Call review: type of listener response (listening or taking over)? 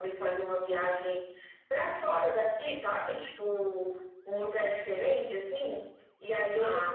listening